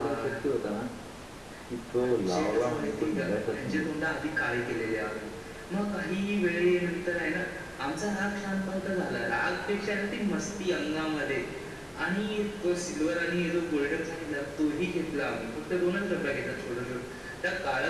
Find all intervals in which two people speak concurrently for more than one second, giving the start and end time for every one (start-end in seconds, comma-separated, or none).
2.0-3.9